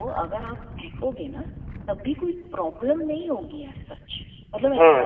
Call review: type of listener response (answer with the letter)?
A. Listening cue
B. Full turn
B